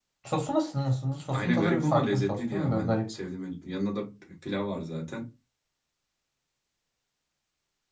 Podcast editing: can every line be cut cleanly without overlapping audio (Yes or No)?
No